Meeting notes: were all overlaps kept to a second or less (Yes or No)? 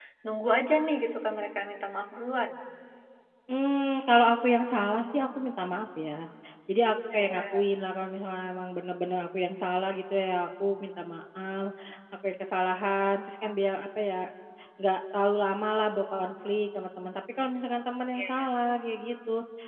Yes